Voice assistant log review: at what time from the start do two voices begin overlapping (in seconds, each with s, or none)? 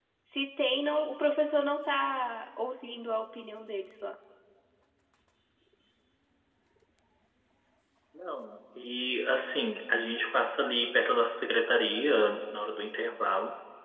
none